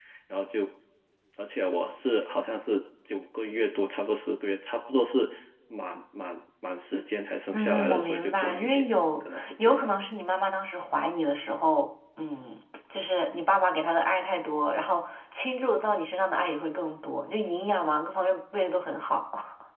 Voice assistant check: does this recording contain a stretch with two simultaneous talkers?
Yes, from 7.5 s

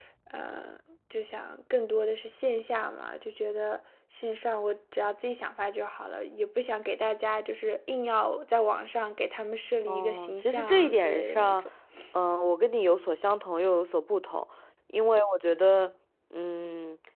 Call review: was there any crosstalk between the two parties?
Yes, from 9.9 s

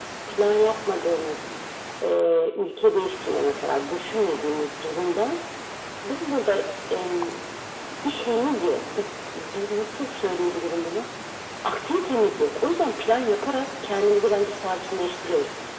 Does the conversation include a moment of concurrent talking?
No

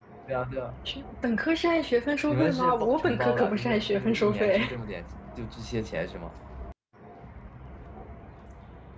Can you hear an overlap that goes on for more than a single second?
Yes, from 2.3 s

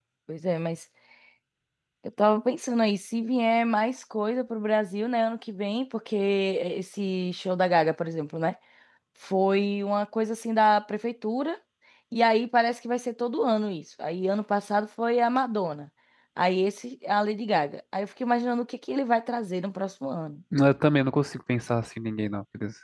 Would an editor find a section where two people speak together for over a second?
No

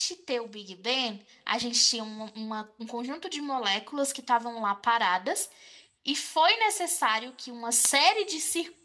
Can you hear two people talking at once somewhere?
No

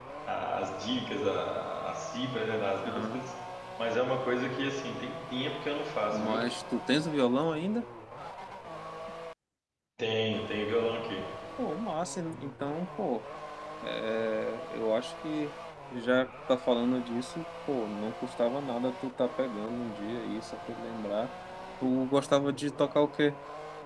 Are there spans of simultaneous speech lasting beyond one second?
No

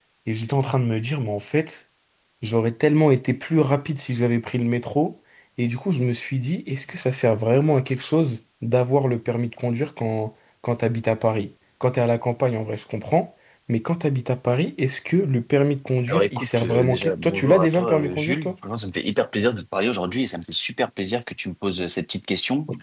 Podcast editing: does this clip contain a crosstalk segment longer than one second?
Yes, from 16.1 s

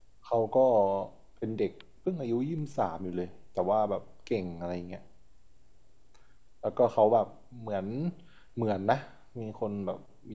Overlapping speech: No

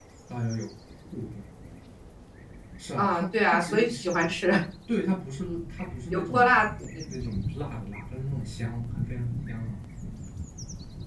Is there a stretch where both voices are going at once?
Yes, from 3.0 s

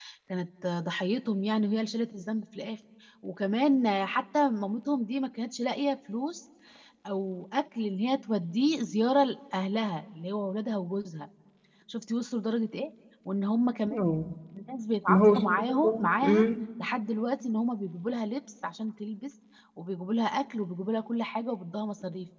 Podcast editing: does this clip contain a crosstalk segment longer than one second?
Yes, from 15.1 s

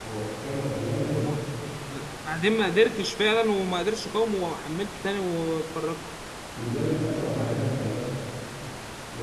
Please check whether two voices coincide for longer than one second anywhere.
No

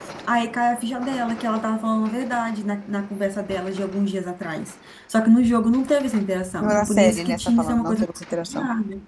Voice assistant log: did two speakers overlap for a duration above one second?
Yes, from 6.6 s

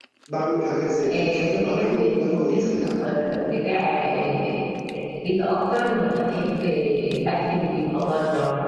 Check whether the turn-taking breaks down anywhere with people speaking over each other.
Yes, from 1.0 s

